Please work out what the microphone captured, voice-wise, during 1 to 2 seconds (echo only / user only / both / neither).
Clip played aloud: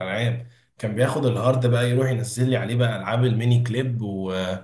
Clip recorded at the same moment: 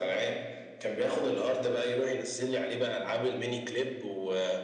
echo only